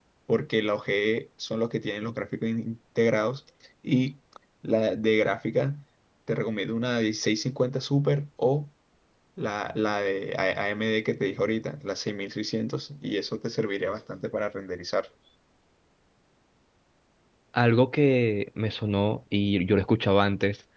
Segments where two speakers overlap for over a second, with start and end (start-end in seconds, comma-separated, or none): none